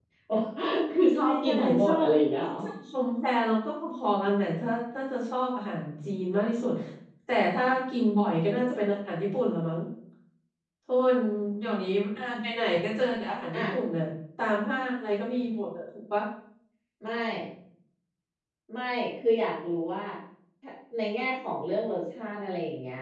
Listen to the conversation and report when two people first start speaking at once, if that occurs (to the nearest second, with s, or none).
1 s